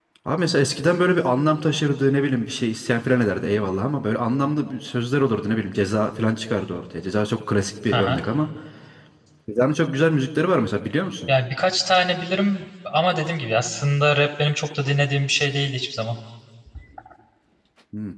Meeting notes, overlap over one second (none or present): none